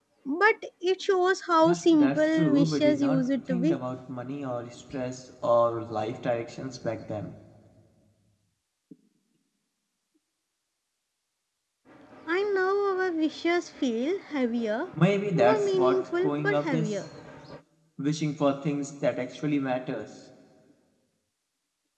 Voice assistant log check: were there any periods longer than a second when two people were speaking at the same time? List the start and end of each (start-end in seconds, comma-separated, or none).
1.6-3.8, 15.3-17.0